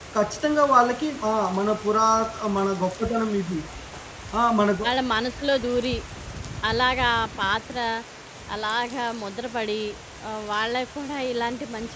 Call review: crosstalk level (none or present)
none